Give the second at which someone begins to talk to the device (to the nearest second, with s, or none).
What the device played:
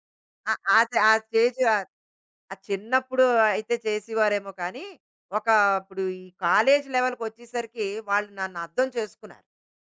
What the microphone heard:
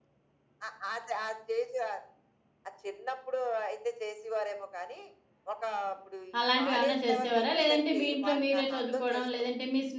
6 s